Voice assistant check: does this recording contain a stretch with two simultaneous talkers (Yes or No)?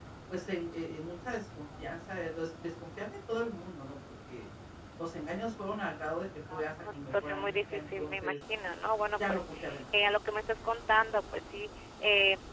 Yes